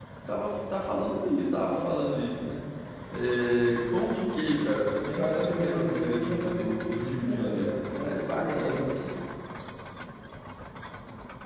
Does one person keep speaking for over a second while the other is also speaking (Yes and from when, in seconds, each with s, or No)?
Yes, from 5.0 s